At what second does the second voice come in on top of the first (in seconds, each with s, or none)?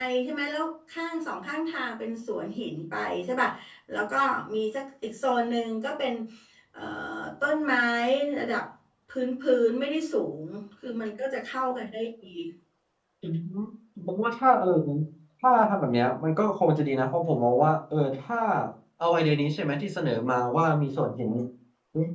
none